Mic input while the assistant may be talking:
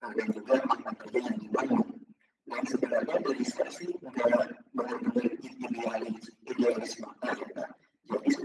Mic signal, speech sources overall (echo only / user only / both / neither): echo only